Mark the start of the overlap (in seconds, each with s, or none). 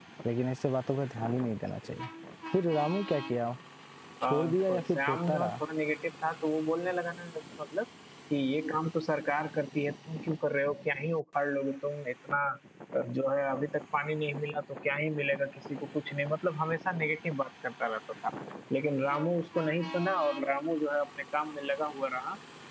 4.2 s